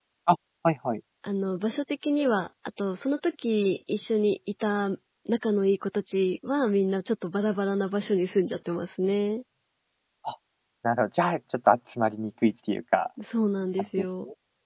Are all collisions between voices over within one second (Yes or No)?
Yes